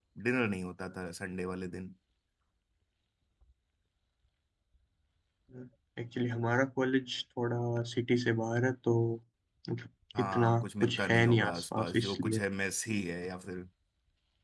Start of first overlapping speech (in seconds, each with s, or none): 10.2 s